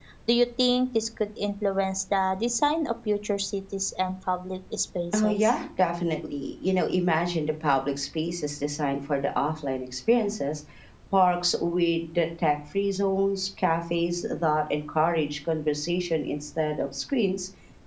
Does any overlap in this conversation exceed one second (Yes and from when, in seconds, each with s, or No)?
No